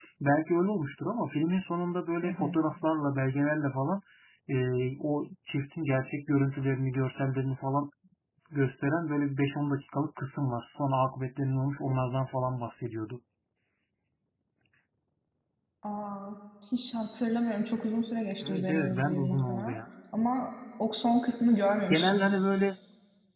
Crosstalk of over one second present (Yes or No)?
Yes